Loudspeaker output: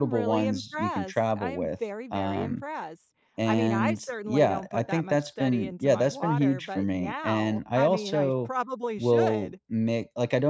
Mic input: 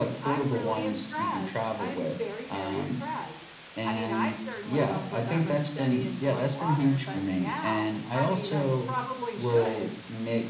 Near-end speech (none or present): none